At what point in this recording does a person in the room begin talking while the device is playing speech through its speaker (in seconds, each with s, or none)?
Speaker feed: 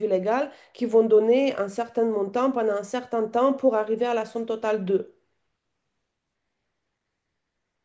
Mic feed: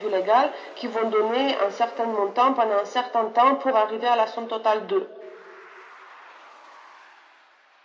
none